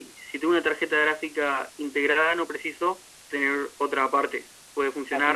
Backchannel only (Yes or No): No